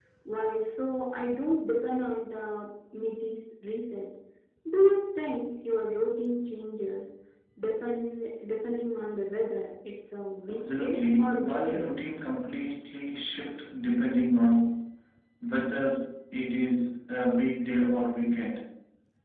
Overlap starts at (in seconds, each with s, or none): 10.5 s